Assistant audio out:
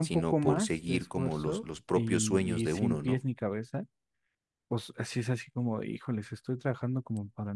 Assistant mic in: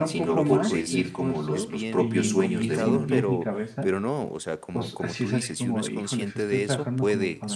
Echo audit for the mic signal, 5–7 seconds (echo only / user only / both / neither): both